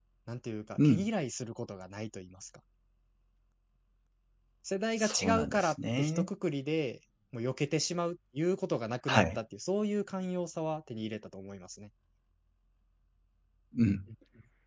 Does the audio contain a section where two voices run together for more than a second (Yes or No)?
Yes